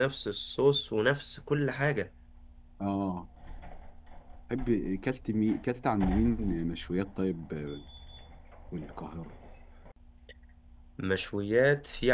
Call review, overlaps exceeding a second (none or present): none